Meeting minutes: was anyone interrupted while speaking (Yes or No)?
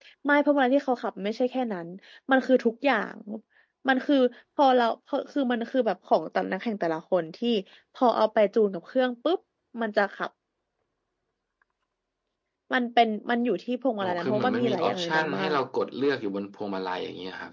Yes